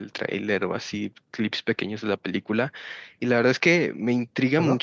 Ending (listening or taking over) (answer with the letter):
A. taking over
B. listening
B